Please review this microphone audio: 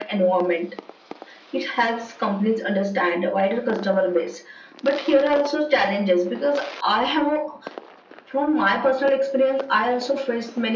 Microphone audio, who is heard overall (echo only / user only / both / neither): echo only